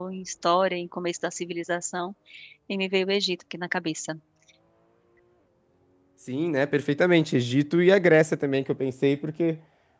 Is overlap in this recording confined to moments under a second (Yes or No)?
Yes